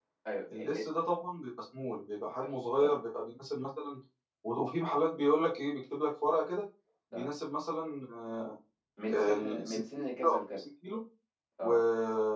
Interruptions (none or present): present